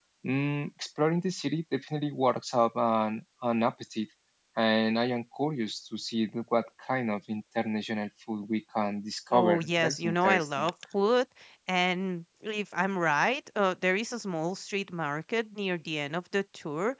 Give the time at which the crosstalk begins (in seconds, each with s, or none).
9.3 s